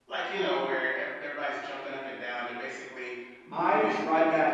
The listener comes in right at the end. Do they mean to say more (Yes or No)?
Yes